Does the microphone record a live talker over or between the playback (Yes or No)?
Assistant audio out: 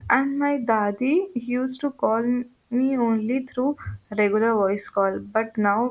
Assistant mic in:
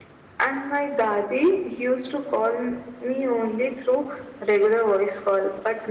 No